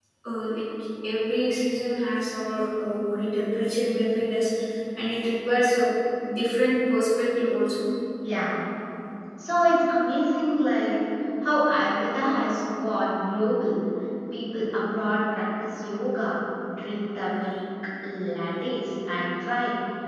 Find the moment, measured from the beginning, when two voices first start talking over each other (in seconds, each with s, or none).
none